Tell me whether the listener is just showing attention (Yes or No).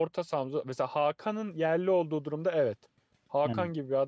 Yes